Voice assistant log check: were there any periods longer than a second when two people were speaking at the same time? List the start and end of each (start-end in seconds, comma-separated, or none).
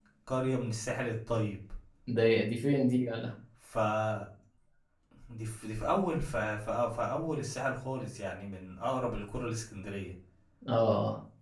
none